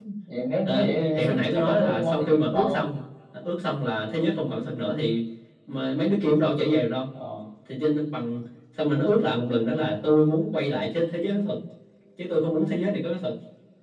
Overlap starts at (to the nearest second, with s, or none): 1 s